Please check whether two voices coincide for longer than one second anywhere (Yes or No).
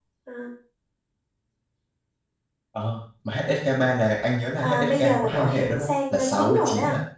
Yes